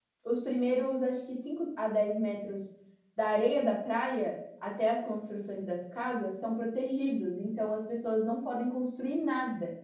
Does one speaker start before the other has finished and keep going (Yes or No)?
No